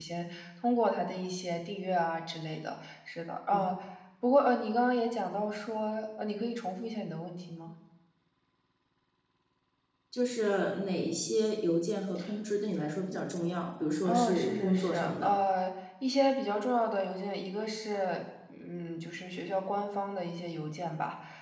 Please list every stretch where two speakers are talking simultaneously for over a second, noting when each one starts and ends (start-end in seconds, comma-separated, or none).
14.0-15.3